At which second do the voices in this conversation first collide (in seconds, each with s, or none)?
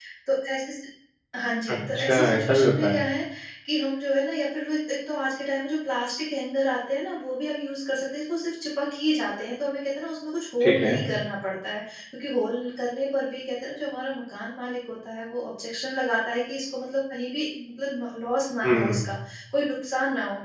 1.7 s